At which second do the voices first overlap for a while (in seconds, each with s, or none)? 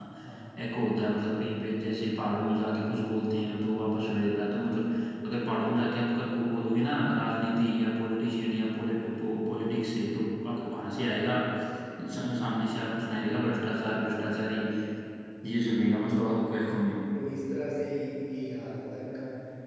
none